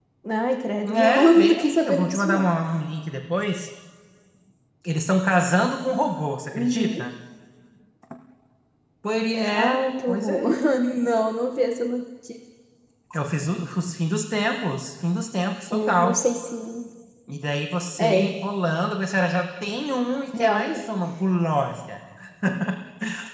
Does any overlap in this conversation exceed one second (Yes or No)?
Yes